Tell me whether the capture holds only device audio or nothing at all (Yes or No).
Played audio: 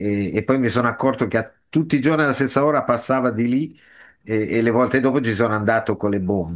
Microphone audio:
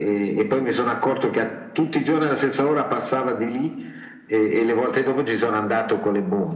Yes